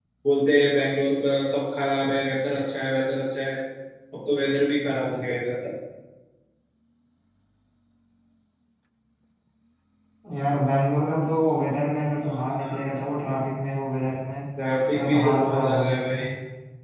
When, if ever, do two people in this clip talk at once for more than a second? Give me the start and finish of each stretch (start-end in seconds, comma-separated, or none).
14.9-16.2